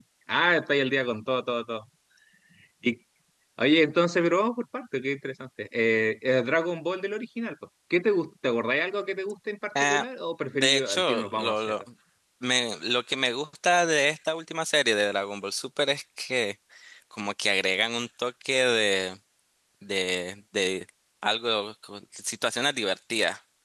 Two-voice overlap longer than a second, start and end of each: 10.5-11.7

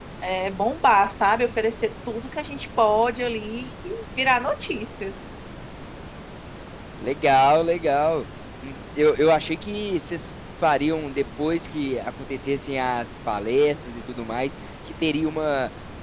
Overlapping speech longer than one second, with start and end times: none

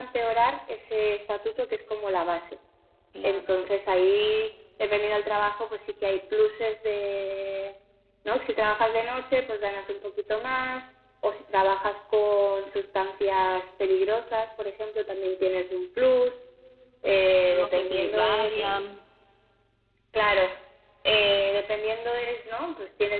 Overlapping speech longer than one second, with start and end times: 17.5-18.8

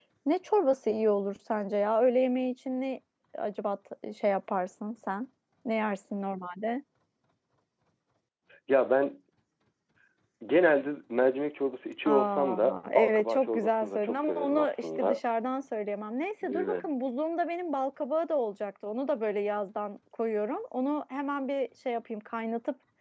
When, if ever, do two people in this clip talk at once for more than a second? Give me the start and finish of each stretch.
12.1-15.2

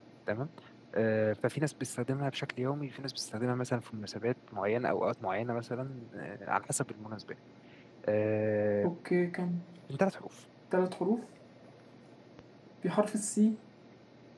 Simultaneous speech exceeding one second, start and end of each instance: none

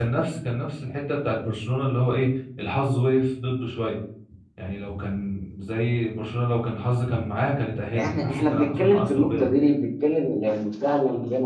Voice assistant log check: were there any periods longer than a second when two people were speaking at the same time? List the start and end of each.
8.0-9.5

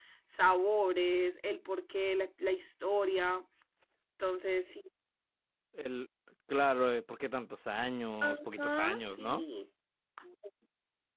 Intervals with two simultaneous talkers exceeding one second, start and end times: 8.2-9.4

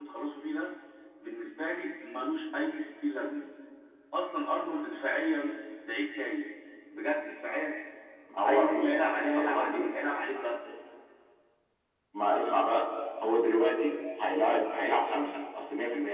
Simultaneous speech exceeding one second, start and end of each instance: 8.4-10.0

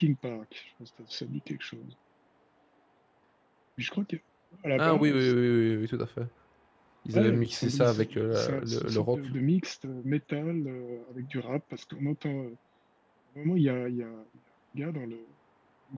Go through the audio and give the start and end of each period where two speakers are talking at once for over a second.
7.1-9.2

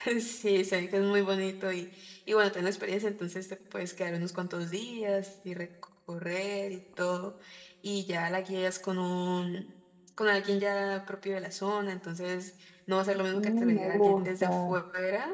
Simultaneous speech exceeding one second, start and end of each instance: 13.3-14.8

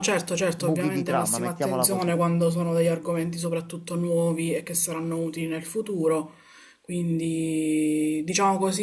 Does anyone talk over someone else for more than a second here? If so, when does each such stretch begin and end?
0.6-2.1

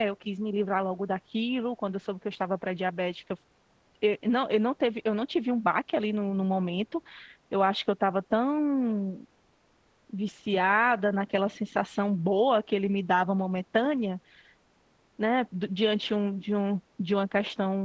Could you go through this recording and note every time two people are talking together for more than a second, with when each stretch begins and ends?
none

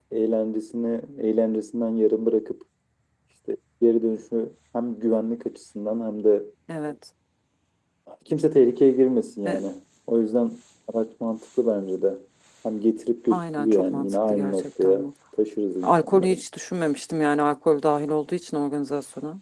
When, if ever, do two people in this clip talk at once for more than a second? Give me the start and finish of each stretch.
13.3-15.1

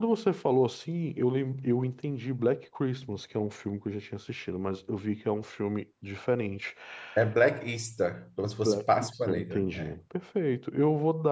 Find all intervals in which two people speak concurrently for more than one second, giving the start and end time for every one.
8.4-9.9

